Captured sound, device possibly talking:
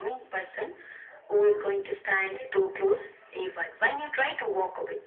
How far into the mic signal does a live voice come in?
none

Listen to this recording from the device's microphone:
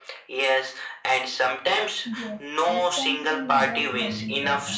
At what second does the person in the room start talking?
2.1 s

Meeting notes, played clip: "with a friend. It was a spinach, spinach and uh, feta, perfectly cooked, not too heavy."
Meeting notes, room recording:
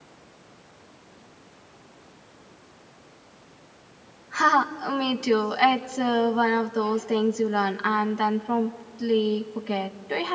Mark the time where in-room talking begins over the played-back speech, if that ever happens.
4.3 s

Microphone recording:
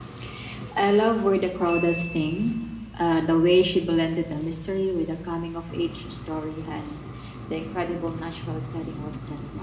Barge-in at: none

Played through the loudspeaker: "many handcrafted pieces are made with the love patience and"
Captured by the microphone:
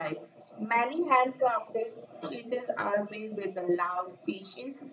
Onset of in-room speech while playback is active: none

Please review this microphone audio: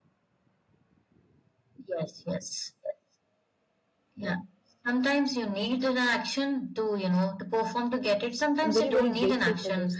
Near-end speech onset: 8.7 s

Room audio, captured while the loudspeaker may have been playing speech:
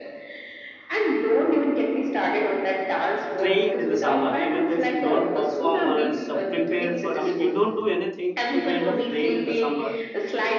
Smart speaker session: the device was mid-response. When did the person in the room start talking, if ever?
3.3 s

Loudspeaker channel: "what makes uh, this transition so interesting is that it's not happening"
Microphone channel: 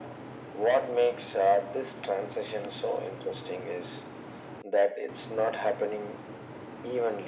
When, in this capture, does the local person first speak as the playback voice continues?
none

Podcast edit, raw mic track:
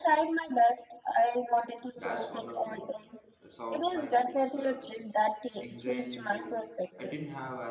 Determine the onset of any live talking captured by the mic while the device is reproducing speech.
1.9 s

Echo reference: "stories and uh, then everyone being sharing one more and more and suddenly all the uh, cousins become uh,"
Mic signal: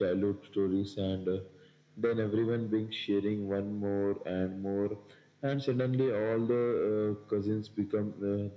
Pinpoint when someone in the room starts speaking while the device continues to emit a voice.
none

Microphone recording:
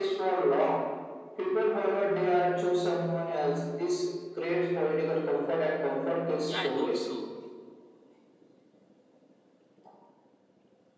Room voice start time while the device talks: 6.4 s

